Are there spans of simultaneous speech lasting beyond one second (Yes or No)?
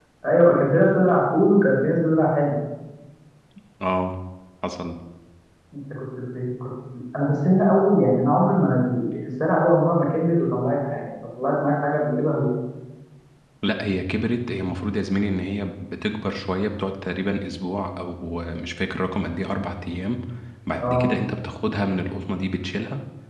No